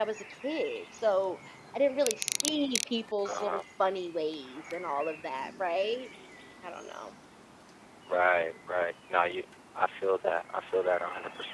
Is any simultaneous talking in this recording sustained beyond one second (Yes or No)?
No